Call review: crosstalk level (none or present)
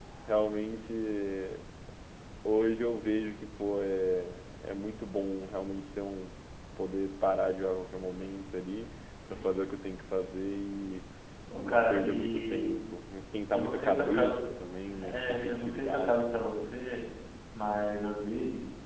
present